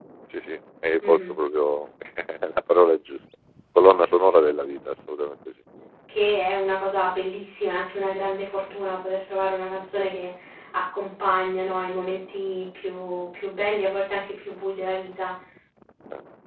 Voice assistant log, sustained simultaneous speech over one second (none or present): none